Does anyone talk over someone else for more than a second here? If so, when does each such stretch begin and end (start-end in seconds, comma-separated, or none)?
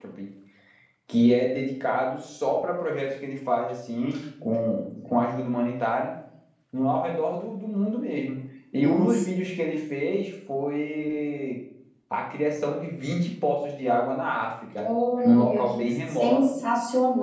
15.2-16.5